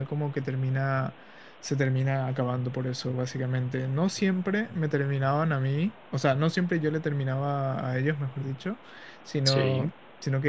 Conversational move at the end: listening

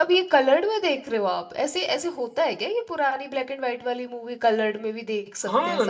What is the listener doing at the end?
taking over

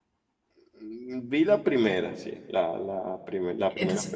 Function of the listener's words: taking over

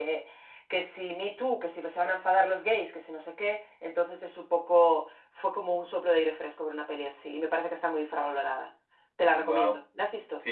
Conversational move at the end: taking over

